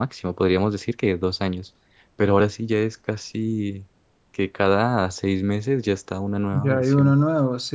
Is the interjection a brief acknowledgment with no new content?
No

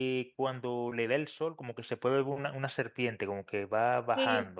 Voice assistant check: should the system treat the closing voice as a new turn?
Yes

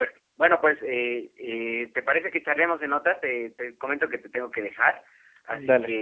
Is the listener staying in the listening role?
Yes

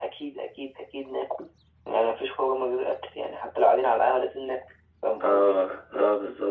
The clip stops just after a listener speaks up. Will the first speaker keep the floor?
No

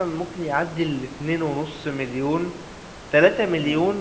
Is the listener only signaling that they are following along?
Yes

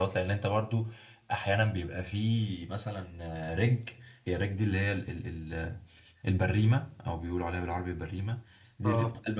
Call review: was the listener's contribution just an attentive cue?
Yes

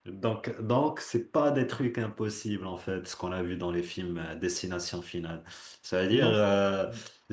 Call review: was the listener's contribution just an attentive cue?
Yes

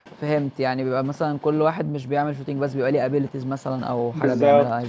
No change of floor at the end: No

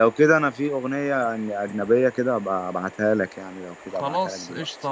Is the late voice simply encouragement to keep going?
No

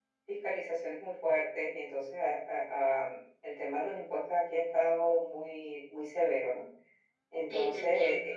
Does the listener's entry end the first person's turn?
No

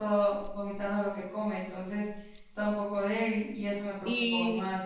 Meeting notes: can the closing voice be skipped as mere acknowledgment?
No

